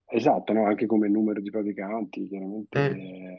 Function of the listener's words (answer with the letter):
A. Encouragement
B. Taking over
A